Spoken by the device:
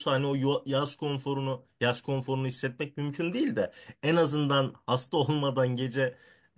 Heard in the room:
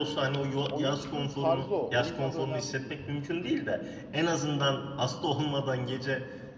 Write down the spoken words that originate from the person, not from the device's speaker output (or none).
Oyunun tarzı o. Oyunun adı önemli değil.